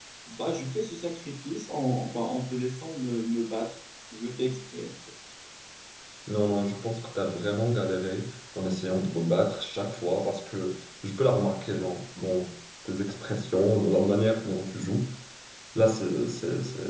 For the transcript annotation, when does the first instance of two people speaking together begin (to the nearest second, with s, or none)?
none